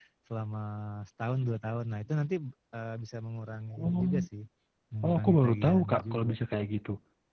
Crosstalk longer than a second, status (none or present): present